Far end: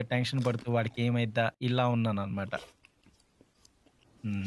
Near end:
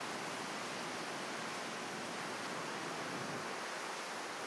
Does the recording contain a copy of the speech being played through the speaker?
No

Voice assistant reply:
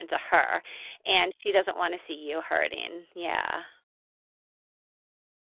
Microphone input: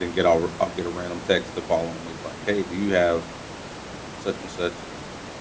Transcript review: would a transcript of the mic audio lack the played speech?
Yes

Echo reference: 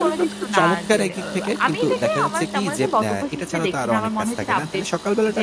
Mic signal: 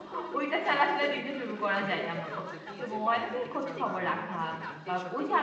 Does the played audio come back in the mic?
Yes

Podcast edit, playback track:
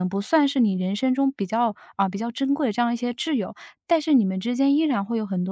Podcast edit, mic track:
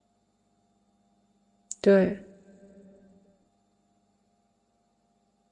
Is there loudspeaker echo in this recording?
No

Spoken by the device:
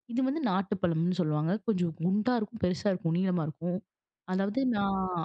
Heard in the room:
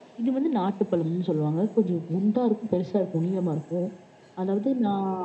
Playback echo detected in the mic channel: Yes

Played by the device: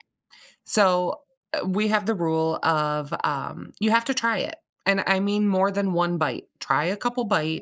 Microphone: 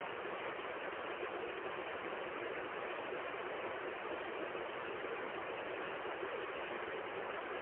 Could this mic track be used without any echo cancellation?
Yes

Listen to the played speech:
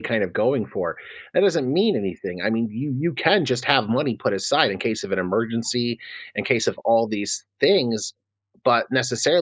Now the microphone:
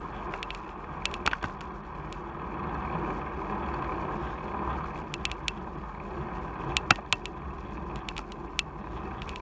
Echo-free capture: Yes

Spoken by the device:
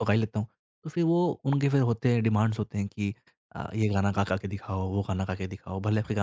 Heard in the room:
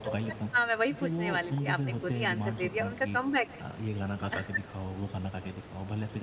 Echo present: Yes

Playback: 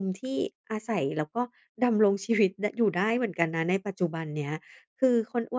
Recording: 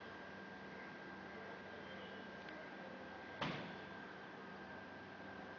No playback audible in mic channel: Yes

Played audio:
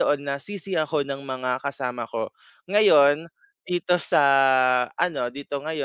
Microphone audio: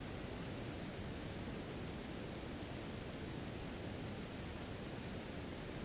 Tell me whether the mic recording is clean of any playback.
Yes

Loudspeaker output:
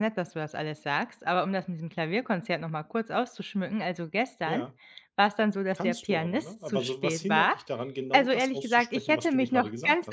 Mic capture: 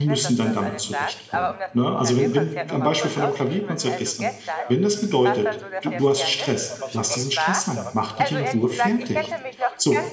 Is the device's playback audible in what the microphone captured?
Yes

